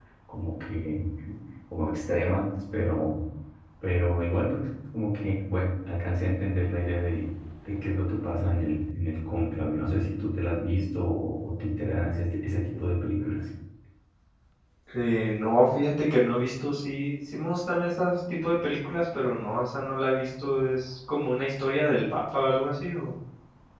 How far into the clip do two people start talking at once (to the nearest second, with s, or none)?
none